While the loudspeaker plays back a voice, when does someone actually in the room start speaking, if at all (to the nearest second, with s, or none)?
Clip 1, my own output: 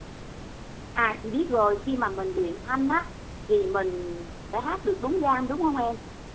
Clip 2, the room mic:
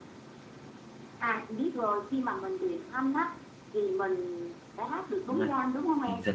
5 s